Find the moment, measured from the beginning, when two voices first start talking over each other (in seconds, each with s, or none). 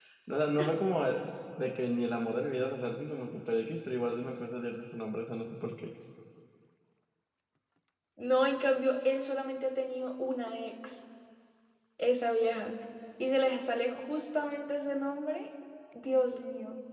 none